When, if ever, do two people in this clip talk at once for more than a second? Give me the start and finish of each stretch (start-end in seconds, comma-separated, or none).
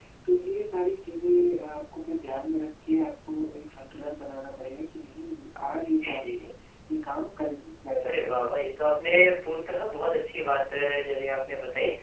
none